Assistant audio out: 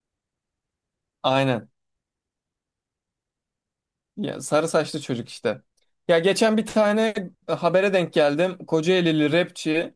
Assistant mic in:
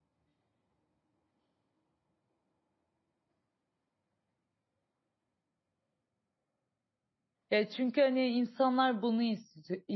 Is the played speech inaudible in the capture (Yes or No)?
Yes